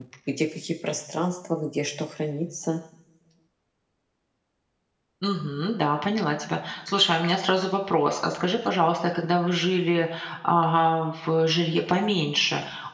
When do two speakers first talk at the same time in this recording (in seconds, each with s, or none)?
none